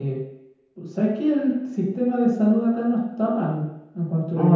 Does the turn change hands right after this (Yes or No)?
Yes